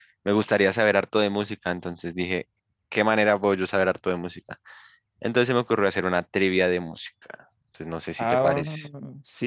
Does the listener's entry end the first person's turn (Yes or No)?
Yes